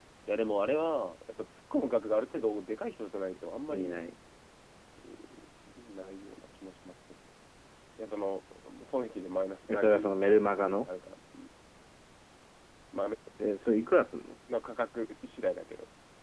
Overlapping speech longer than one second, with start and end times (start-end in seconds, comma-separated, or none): 9.7-10.9